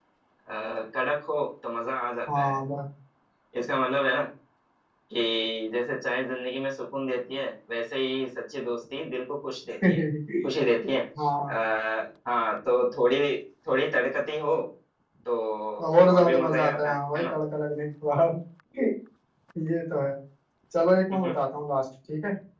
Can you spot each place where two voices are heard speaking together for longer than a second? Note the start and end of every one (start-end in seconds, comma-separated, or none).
16.1-17.3